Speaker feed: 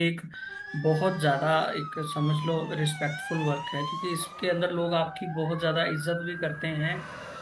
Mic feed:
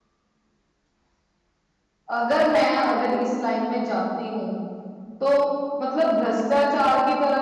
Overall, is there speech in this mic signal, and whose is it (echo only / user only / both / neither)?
user only